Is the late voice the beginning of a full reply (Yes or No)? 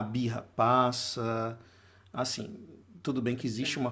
No